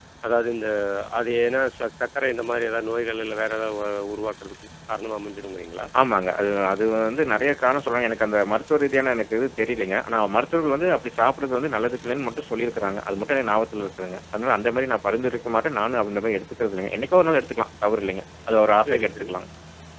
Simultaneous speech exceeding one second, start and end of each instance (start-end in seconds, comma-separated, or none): none